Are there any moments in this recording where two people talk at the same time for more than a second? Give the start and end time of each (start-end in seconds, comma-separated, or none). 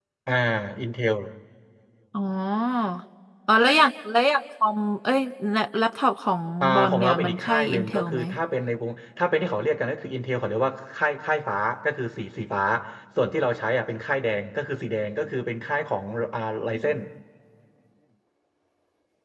6.6-8.2